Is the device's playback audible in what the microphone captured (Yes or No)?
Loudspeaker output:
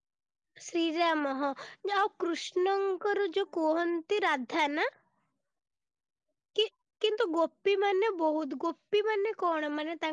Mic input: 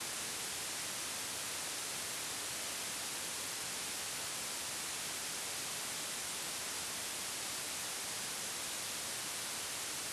No